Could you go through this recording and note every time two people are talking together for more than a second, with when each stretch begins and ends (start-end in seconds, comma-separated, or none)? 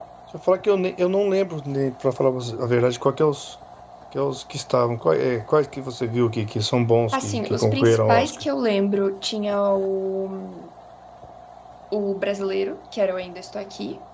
7.1-8.5